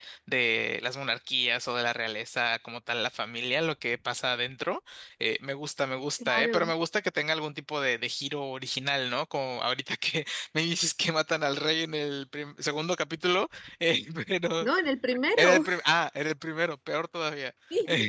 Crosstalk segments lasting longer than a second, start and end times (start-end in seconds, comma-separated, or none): none